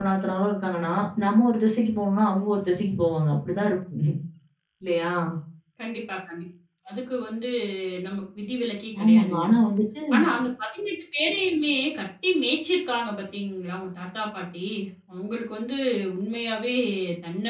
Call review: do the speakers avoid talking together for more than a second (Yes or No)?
Yes